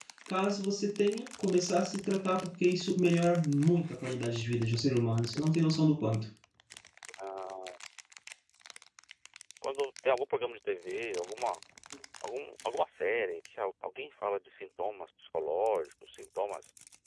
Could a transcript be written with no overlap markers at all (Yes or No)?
Yes